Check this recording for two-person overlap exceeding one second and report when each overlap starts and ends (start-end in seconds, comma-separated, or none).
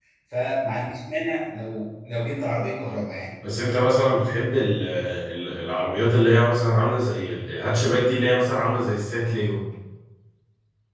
none